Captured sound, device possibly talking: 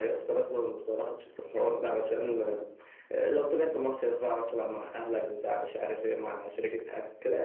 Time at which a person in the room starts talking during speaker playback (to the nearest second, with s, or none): none